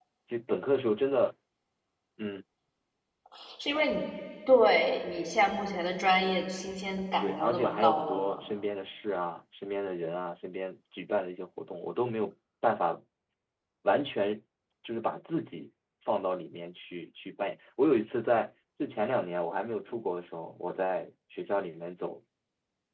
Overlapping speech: Yes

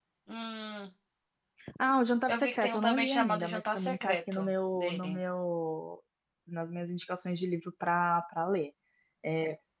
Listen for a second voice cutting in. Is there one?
Yes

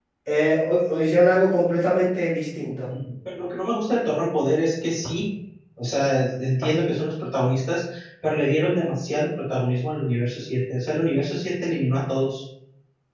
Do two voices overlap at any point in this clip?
No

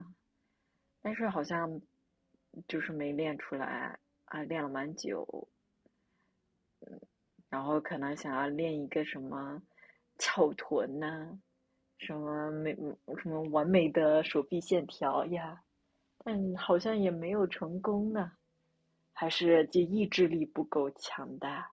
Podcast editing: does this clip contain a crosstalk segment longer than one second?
No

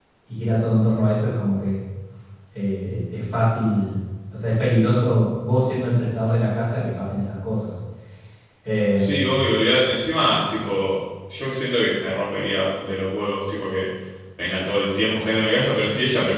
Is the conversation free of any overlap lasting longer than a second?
Yes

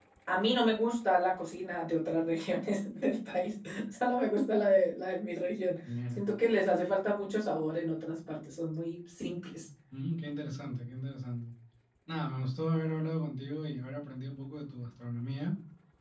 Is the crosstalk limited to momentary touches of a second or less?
Yes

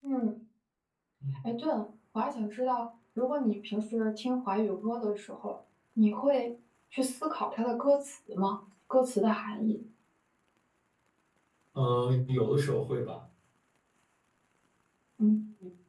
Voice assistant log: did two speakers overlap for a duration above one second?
No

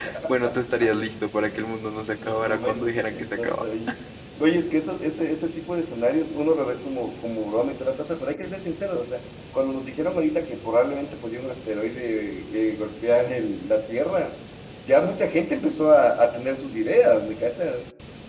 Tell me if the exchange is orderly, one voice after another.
No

